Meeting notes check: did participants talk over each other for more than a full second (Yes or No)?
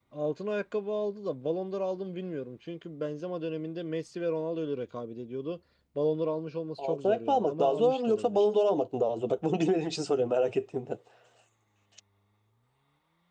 Yes